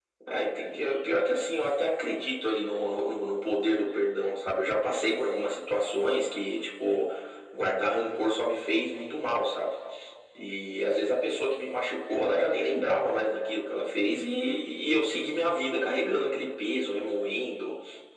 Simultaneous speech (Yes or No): No